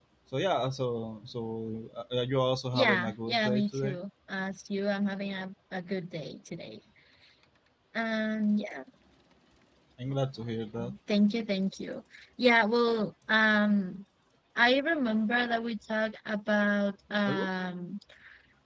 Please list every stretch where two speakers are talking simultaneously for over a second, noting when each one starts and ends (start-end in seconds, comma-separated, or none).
2.7-4.0